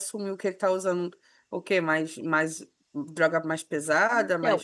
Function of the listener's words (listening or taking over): taking over